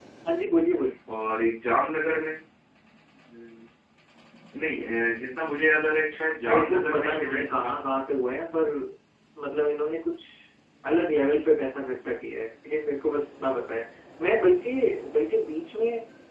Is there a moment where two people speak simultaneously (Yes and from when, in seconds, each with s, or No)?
Yes, from 6.4 s